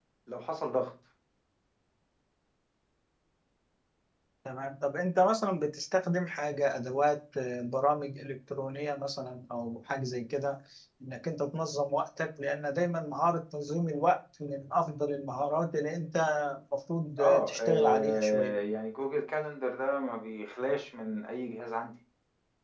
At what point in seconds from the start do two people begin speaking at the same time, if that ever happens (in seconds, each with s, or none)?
17.2 s